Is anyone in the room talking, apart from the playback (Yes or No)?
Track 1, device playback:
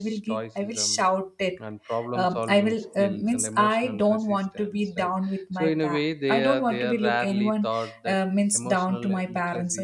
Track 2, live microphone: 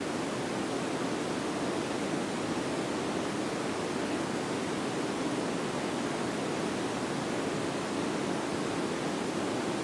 No